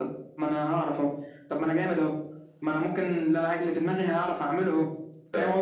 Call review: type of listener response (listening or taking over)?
taking over